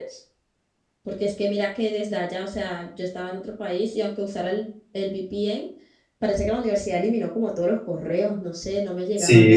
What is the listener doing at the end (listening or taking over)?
taking over